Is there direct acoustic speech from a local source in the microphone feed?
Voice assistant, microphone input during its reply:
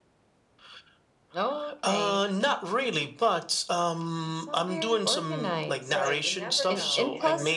Yes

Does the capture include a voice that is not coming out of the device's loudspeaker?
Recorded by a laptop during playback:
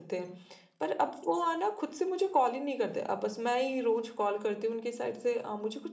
No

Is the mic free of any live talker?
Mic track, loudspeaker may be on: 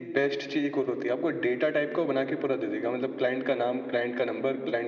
Yes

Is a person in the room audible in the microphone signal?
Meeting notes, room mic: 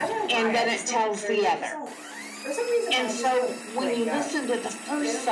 Yes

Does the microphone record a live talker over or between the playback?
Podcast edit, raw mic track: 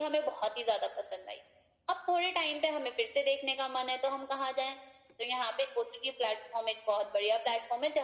No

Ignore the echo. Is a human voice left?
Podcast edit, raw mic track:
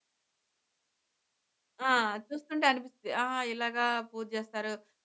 Yes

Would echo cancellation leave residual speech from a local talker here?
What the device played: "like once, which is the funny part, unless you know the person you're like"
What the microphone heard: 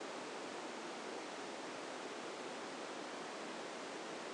No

